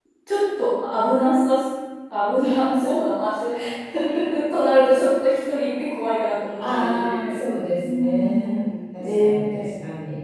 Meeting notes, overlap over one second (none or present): present